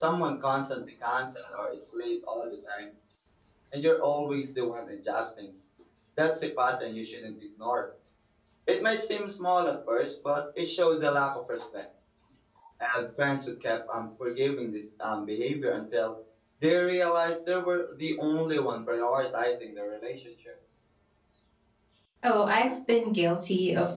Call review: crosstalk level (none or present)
none